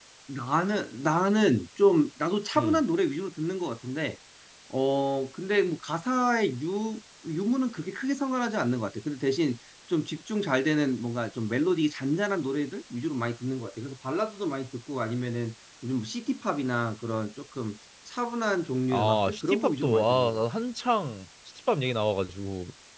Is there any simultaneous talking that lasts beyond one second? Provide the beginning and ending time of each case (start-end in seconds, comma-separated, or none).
18.9-20.4